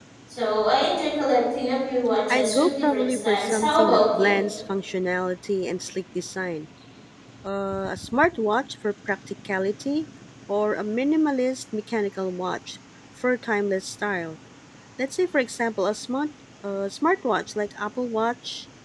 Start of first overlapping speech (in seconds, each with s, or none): 2.3 s